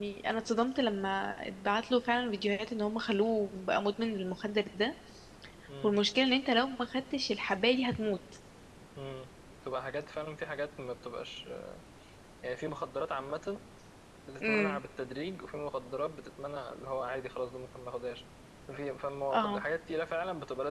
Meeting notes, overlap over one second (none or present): none